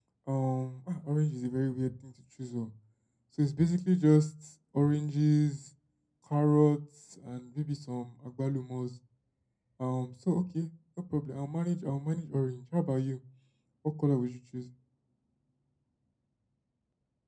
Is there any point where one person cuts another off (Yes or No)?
No